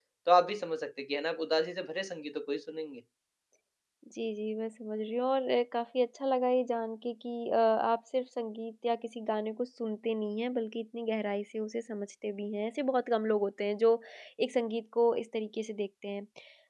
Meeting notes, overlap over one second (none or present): none